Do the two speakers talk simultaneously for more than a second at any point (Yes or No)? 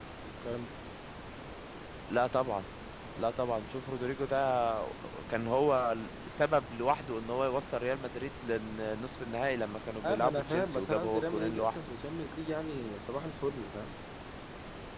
Yes